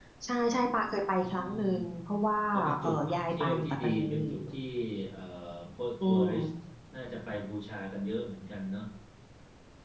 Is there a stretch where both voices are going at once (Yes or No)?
Yes